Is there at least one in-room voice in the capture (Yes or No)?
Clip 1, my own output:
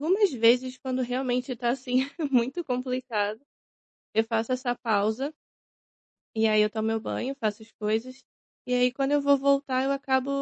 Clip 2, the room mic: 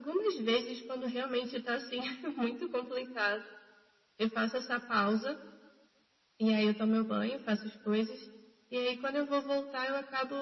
No